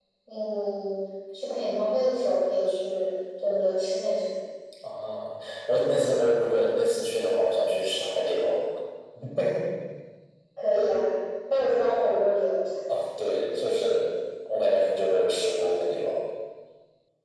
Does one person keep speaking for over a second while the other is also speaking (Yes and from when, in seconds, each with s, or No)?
No